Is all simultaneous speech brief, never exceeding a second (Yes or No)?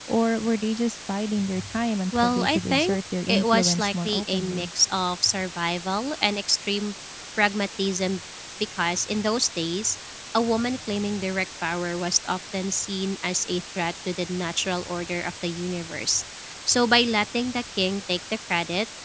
No